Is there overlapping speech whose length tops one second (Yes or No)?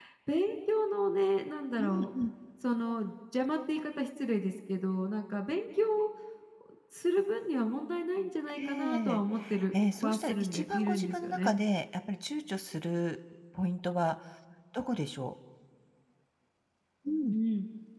Yes